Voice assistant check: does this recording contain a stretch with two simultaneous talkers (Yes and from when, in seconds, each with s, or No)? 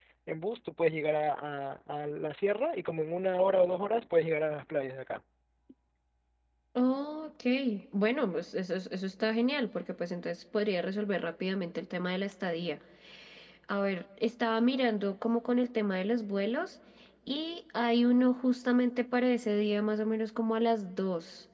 No